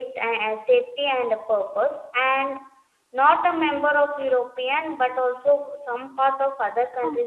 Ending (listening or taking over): taking over